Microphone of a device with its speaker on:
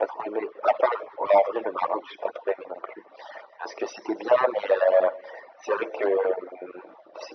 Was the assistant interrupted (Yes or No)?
No